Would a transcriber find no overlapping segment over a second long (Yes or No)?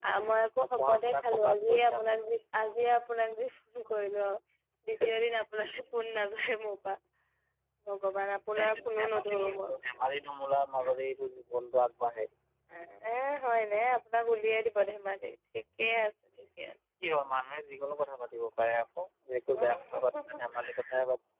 No